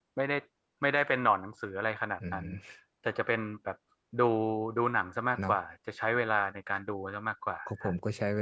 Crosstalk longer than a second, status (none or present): none